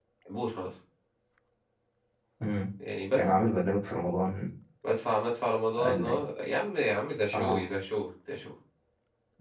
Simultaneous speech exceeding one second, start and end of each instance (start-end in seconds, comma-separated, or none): none